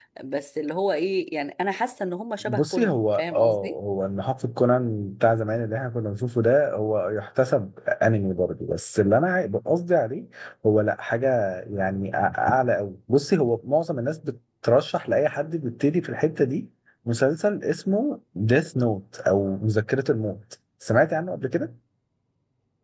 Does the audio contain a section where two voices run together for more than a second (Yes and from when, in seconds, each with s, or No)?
Yes, from 2.4 s